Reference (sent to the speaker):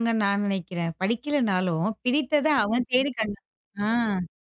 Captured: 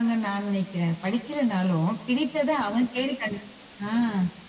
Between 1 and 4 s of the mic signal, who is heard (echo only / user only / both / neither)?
echo only